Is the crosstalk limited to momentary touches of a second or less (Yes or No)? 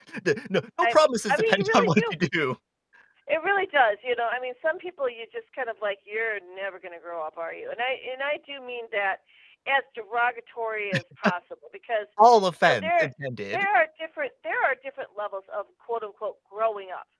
No